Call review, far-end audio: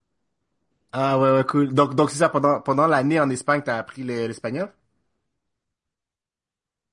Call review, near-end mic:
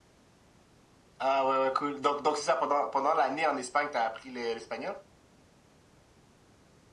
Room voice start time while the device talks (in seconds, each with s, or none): none